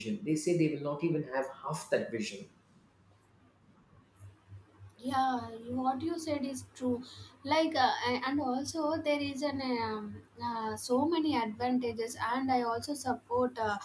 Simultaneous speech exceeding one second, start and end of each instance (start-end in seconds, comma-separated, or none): none